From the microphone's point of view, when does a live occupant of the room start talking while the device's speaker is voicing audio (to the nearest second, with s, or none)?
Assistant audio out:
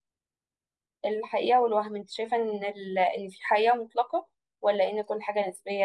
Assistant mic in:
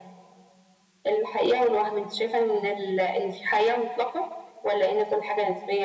none